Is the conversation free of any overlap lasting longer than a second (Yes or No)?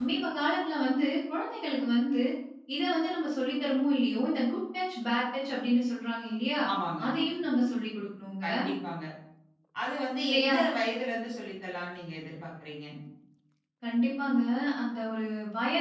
Yes